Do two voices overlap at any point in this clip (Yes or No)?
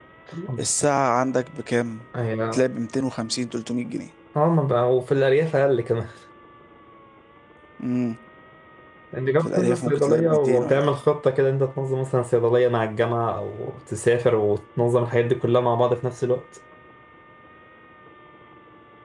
Yes